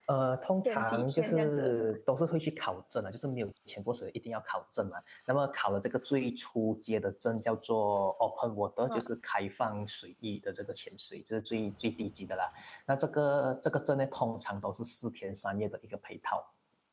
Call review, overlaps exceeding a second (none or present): present